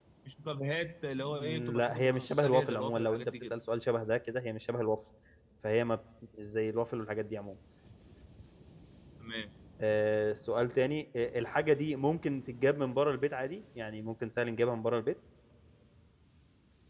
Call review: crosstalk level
present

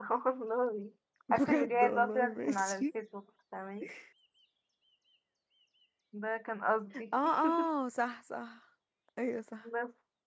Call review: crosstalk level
present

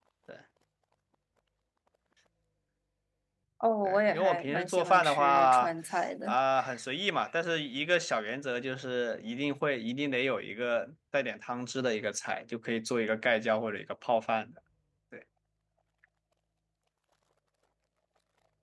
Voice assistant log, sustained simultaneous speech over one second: present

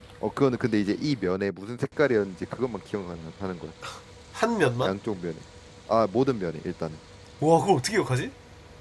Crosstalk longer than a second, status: none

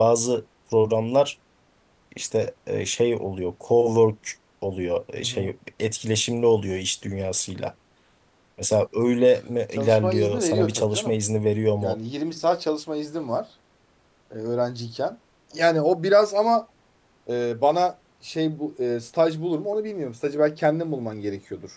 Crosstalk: present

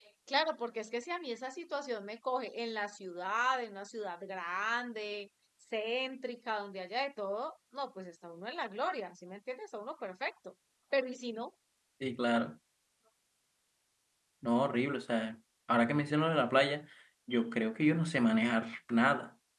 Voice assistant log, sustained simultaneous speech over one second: none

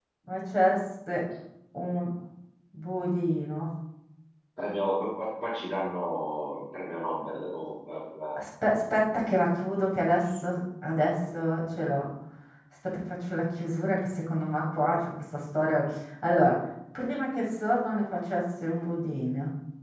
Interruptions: none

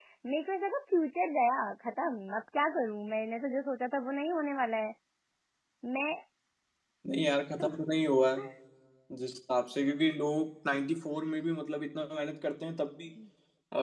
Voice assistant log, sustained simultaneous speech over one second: none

